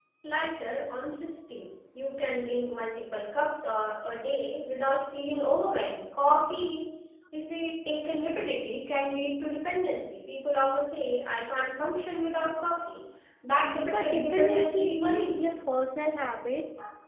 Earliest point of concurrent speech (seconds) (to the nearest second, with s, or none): 14 s